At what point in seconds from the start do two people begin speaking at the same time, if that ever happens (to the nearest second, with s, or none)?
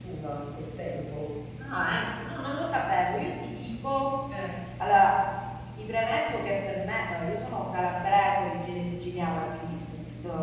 none